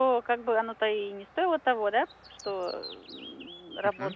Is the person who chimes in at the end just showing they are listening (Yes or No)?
Yes